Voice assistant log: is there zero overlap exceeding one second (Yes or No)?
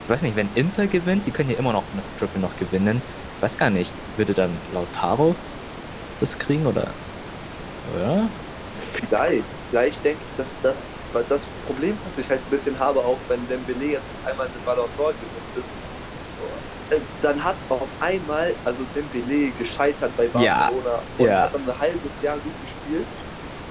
Yes